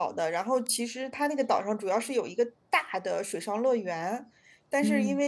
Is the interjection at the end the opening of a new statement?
No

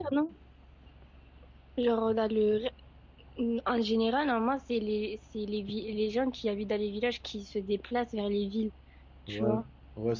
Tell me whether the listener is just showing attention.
No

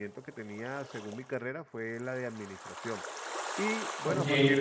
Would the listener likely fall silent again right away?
Yes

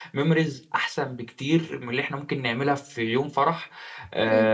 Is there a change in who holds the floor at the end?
No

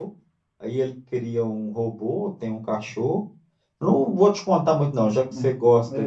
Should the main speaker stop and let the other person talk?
No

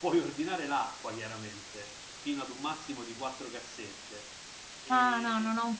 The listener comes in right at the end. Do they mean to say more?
Yes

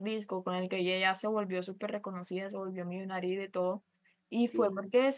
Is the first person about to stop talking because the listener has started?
No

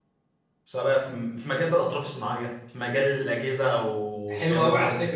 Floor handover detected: Yes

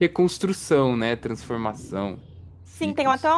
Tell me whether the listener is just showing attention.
No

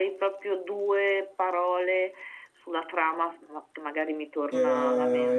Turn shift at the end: Yes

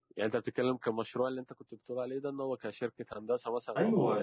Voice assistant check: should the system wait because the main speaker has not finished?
No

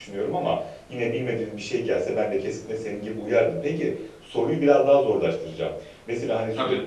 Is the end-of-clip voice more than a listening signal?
No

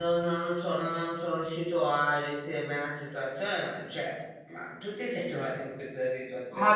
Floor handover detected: Yes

